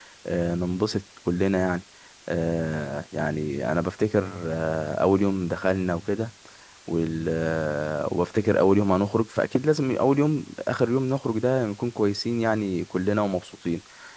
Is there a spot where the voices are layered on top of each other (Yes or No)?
No